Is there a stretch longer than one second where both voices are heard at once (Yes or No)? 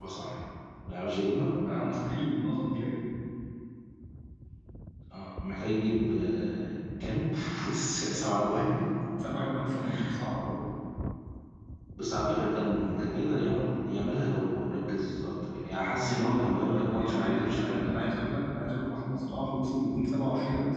Yes